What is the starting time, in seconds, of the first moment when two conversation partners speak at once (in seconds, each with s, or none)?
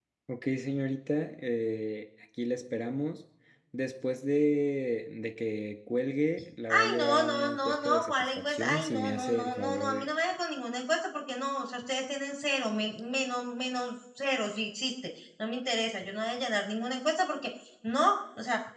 6.7 s